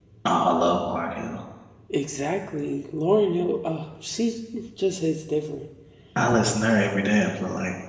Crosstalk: none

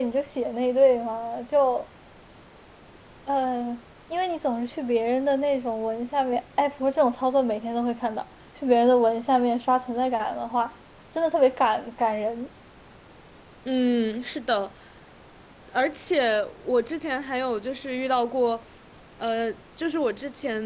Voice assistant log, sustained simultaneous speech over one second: none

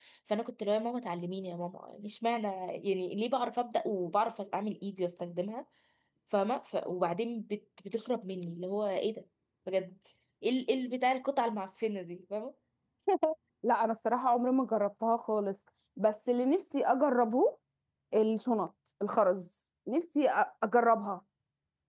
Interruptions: none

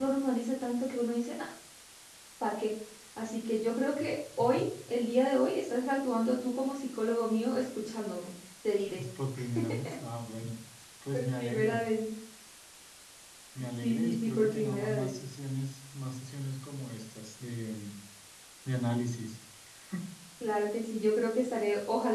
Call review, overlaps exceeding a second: present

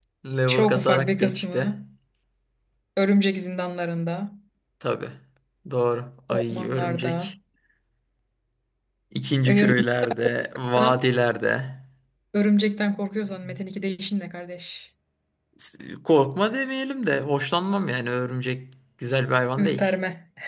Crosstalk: present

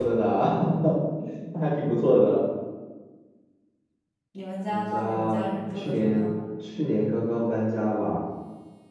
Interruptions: present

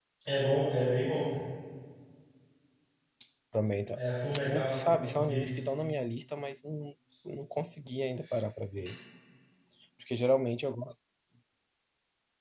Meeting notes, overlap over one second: present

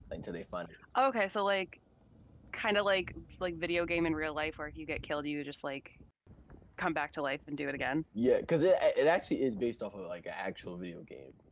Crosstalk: none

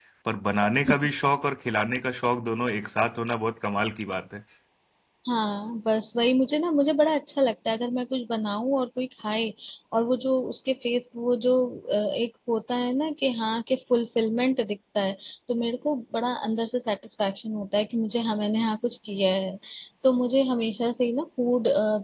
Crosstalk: none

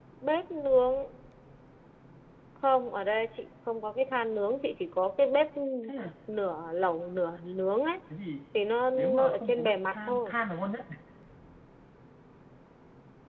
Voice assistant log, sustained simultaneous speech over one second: present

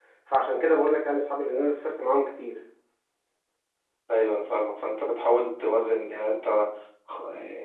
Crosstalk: none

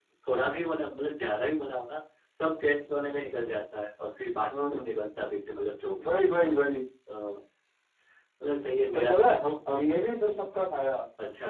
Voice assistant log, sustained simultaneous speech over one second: none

